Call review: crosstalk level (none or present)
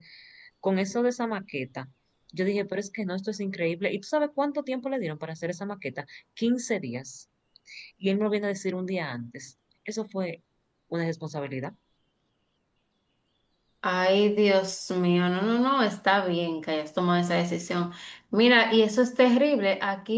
none